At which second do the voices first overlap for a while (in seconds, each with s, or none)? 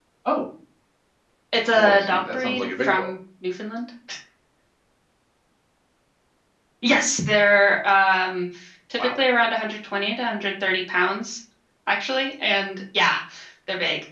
1.7 s